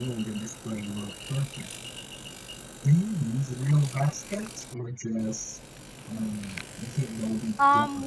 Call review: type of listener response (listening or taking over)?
taking over